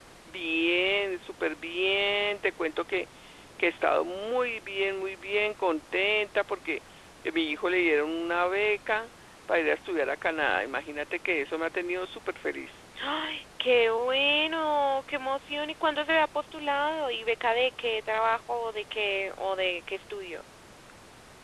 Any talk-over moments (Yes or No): No